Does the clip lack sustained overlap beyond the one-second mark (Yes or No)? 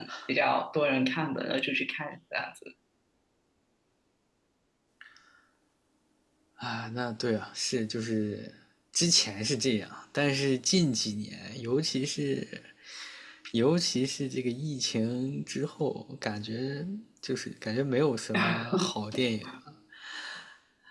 Yes